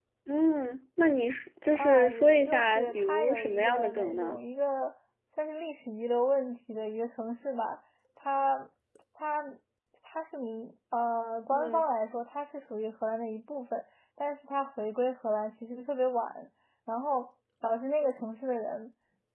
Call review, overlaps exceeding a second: present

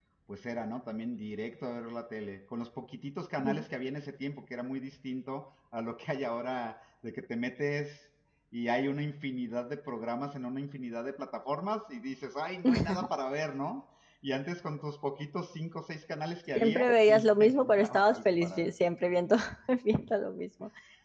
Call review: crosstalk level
present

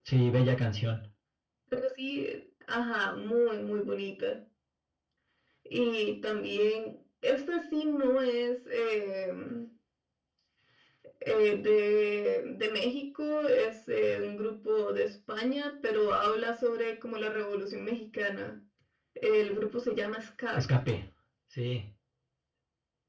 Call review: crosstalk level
none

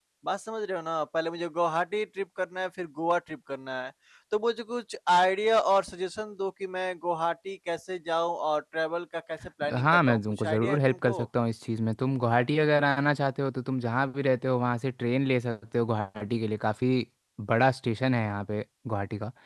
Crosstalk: present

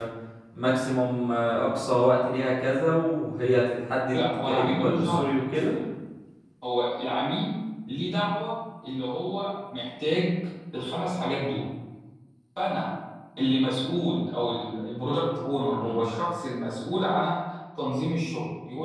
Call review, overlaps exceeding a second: present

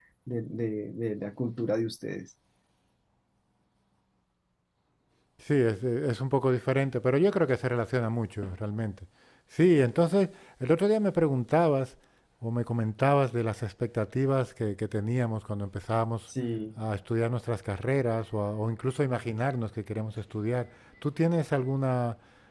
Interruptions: none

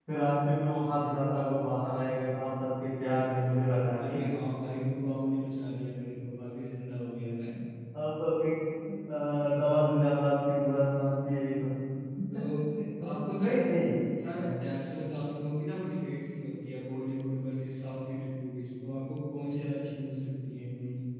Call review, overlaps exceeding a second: none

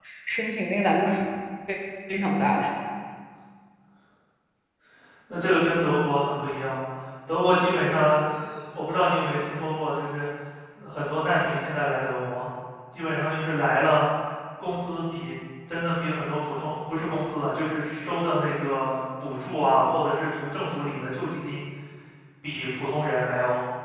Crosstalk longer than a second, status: none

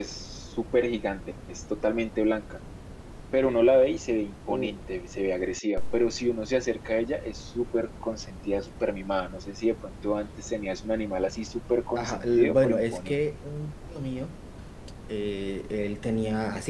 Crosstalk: present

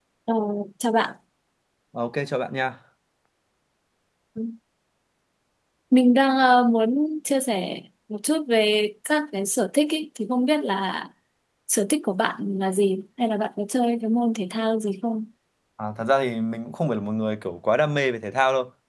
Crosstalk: none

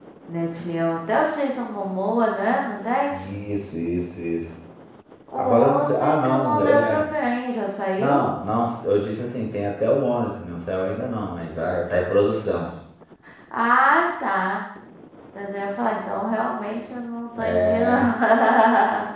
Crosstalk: present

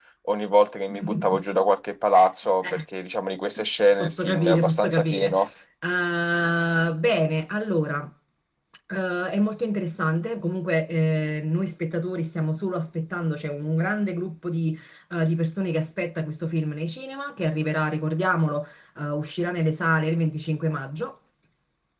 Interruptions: present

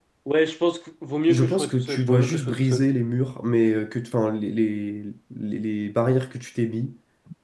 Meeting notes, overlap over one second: present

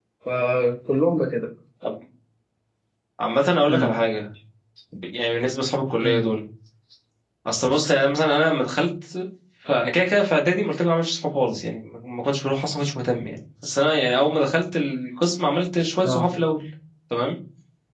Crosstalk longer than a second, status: none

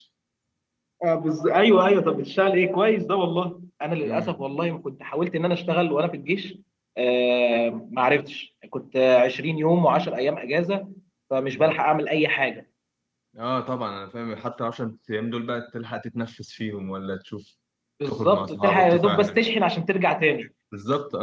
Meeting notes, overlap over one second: present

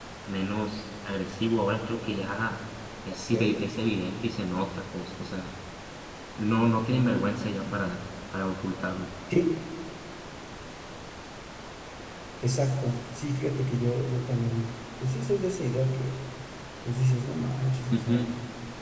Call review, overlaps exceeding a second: none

